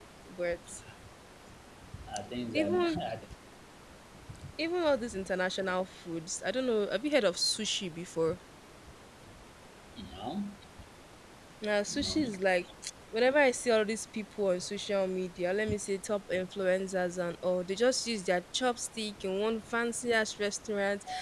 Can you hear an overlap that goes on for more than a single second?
No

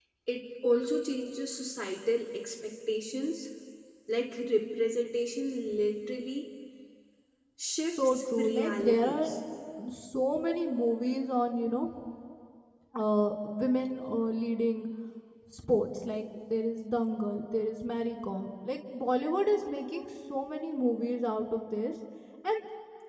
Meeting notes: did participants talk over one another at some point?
Yes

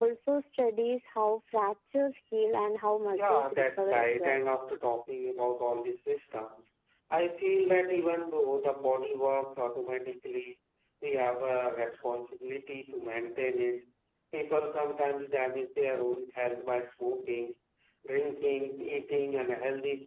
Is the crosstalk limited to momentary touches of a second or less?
No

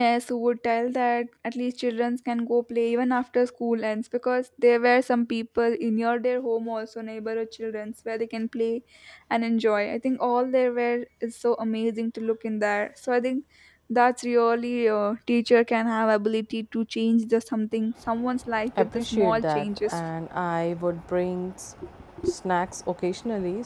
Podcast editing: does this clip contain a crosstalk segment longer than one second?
Yes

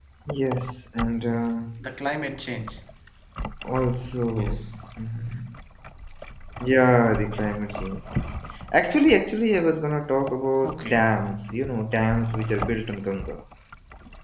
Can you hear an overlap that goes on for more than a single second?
No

